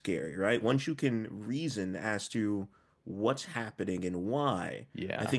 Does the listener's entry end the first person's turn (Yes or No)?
No